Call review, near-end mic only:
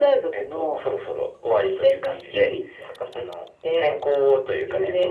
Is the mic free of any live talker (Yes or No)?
Yes